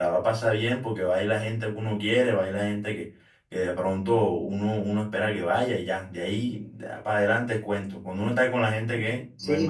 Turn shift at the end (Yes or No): Yes